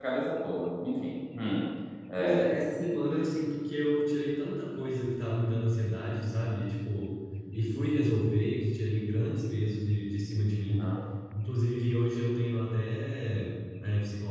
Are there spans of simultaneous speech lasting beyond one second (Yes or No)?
No